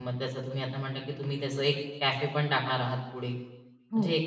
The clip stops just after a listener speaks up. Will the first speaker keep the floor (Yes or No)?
Yes